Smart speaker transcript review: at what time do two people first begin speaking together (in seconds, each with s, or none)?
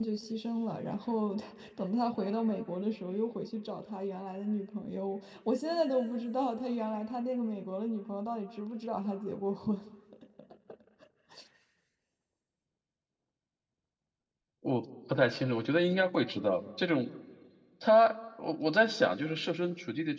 none